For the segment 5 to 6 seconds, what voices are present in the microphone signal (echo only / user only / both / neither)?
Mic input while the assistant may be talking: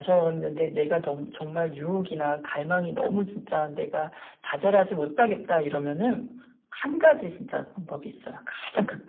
echo only